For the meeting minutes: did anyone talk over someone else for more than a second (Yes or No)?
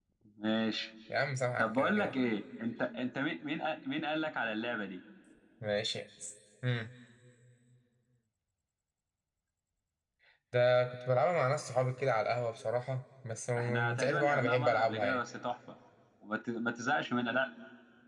Yes